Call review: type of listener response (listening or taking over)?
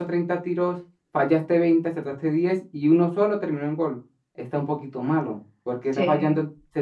listening